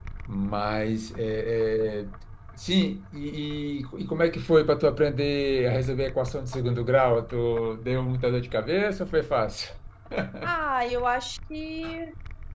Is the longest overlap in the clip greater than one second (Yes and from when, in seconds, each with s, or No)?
No